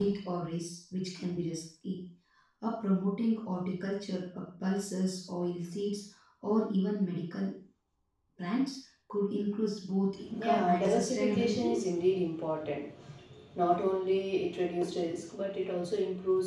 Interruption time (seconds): 10.3 s

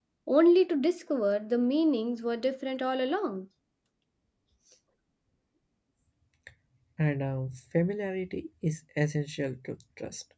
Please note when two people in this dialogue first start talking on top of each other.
none

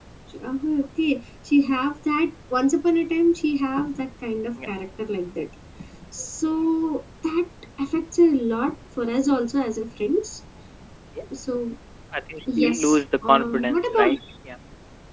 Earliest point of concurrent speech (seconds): 12.6 s

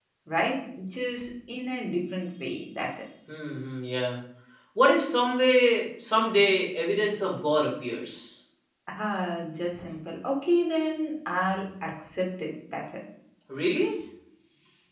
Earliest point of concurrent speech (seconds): none

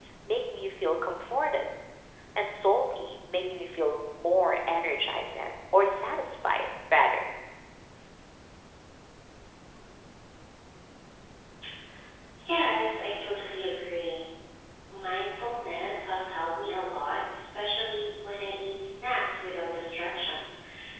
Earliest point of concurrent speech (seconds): none

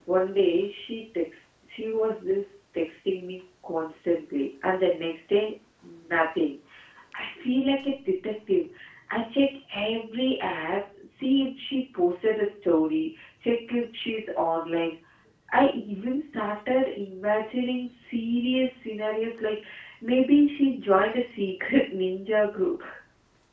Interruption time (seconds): none

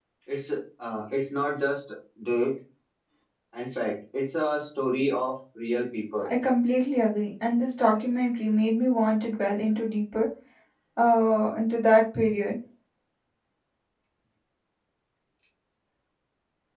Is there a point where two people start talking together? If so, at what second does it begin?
none

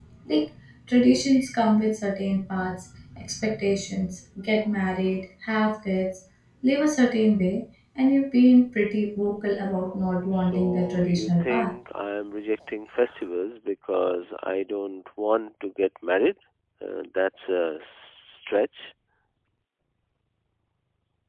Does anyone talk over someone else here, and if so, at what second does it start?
10.4 s

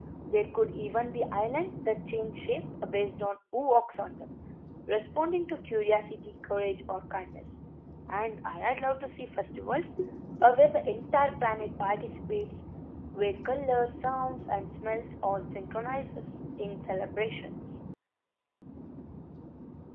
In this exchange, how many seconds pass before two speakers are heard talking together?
none

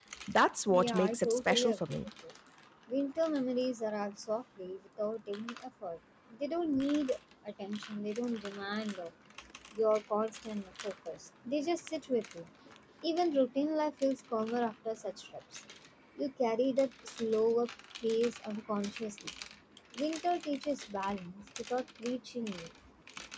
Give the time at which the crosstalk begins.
0.7 s

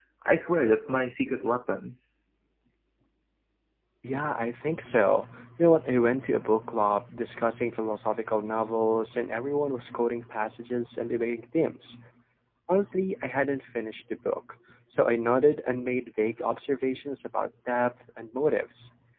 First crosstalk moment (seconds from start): none

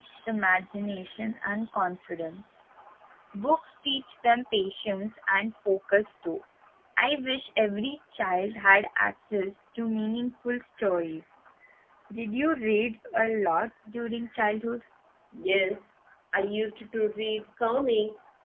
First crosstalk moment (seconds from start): none

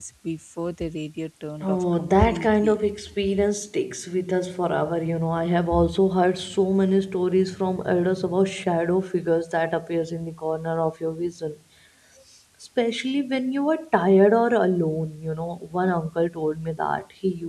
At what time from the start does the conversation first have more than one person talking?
1.6 s

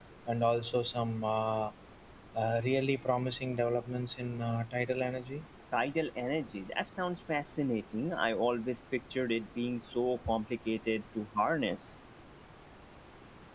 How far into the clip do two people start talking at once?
none

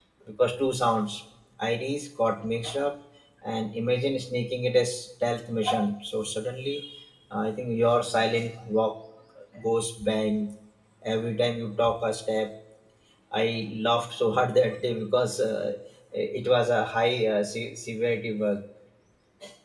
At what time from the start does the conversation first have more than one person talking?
none

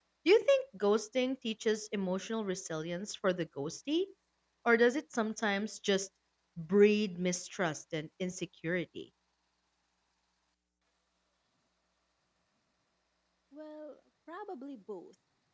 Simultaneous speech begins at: none

